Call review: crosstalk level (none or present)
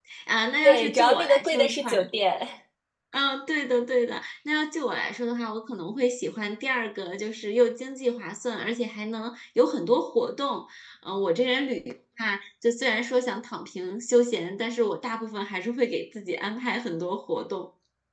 present